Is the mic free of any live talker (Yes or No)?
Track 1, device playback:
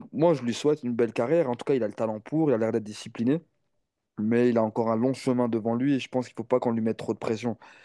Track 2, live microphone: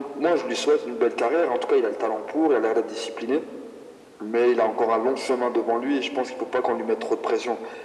Yes